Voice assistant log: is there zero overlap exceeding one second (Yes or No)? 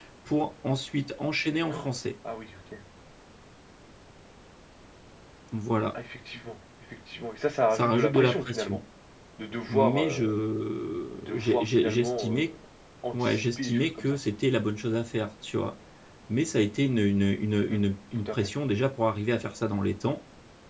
No